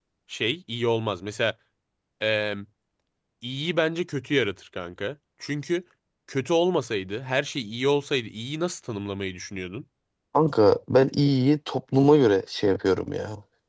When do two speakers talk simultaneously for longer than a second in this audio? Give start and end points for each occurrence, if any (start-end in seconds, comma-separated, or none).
none